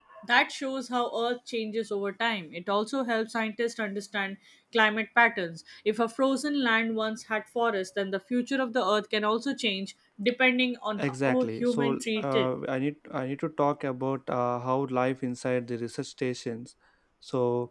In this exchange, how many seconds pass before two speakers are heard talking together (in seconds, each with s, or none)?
11.0 s